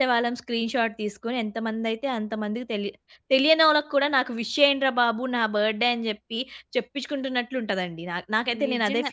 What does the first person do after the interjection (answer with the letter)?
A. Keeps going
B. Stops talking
B